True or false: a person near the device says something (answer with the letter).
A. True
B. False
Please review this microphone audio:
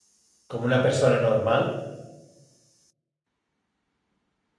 A